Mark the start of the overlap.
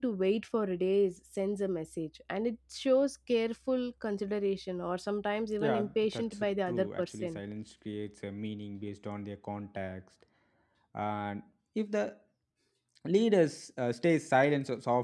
5.6 s

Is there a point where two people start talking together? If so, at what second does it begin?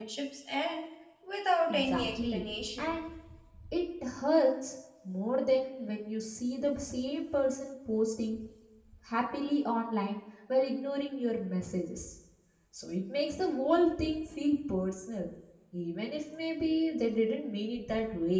1.7 s

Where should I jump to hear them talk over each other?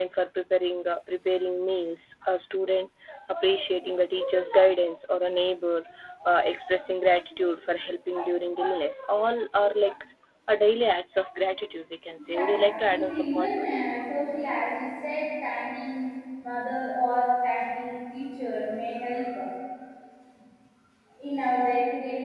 12.2 s

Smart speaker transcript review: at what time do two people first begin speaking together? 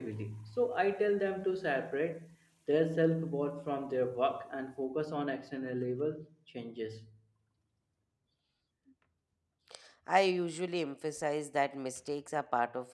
none

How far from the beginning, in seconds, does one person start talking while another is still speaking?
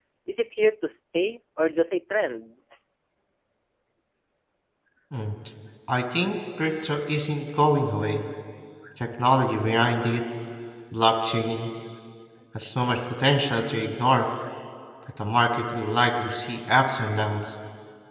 none

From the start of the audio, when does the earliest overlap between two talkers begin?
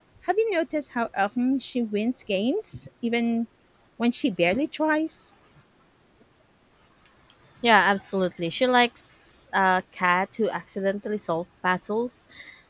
none

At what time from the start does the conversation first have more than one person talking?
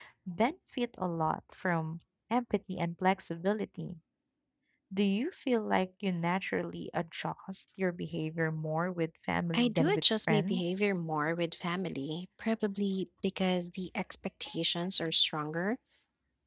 9.5 s

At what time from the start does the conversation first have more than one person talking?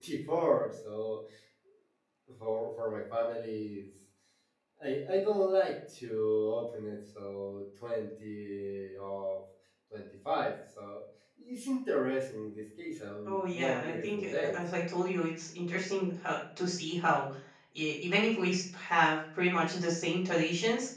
13.2 s

